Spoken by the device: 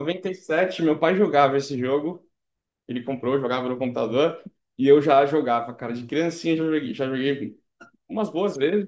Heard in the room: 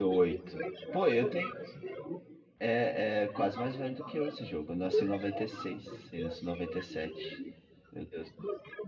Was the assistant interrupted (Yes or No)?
Yes